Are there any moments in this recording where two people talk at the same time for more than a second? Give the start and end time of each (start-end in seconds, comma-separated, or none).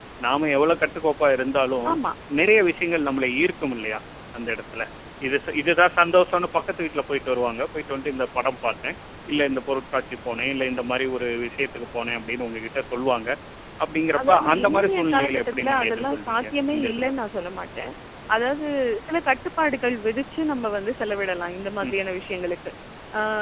14.2-17.1